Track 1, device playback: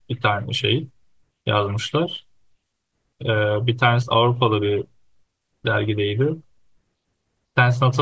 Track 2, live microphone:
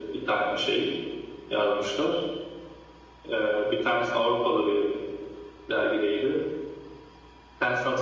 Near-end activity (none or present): none